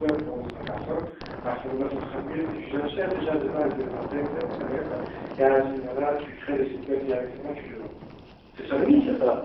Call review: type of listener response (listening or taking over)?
taking over